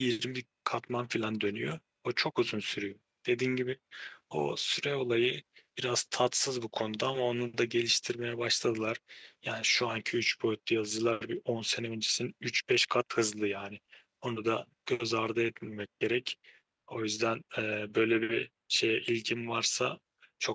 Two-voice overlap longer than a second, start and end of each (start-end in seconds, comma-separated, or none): none